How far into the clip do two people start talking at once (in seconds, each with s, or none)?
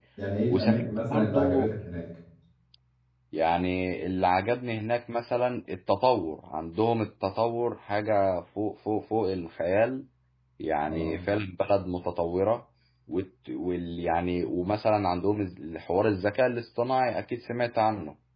0.5 s